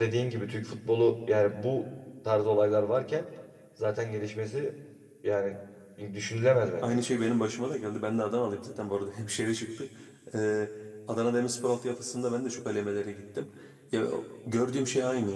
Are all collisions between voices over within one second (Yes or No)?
Yes